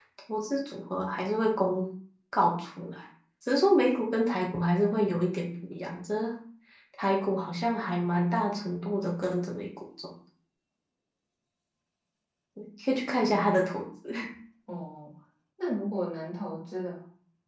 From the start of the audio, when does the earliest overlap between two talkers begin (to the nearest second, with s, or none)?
none